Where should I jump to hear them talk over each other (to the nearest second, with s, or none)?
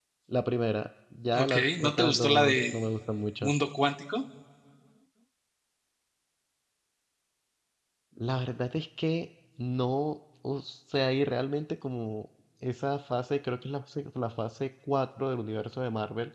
1 s